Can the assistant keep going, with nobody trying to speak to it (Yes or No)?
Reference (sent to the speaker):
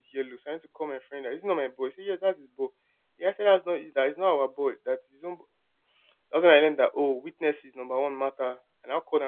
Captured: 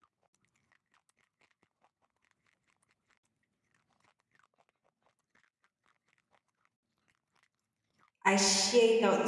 No